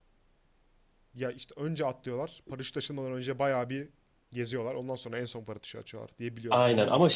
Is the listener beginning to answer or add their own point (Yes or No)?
Yes